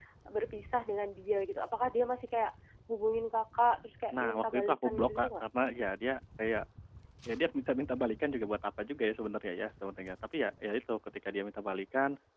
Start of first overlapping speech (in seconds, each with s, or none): 4.1 s